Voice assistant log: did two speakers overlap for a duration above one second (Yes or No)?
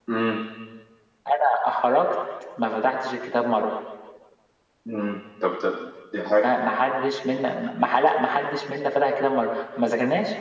No